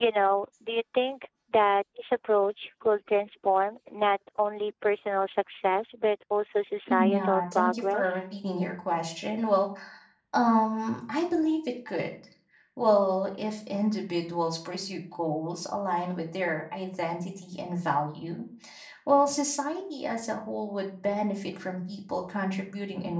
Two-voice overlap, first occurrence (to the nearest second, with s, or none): 7 s